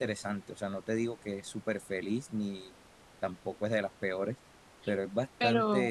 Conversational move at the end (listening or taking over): listening